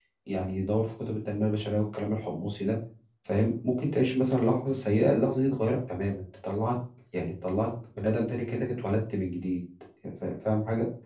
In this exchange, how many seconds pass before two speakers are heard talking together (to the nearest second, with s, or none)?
none